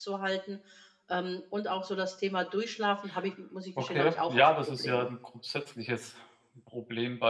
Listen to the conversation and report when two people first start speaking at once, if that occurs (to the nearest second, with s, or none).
4 s